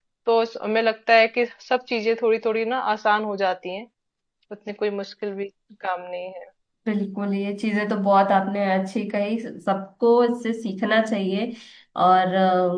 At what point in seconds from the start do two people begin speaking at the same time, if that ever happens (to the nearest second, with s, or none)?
none